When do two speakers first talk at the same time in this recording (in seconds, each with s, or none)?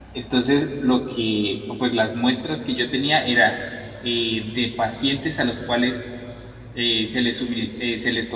none